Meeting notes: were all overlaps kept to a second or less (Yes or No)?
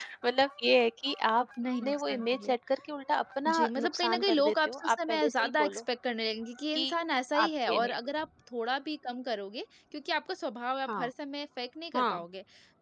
No